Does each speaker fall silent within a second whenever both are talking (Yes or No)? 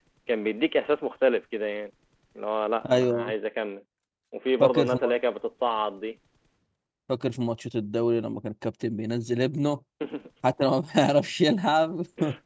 Yes